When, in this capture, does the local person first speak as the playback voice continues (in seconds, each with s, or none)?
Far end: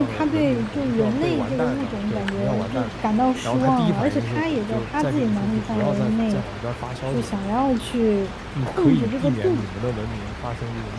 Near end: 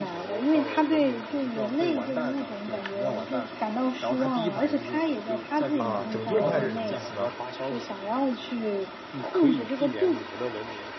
5.8 s